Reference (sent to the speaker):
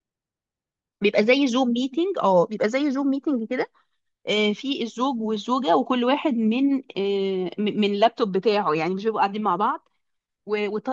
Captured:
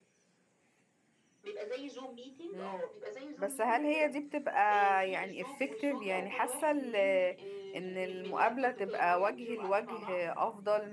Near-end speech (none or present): present